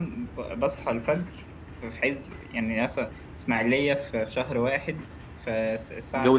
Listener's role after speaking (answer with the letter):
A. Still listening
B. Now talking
A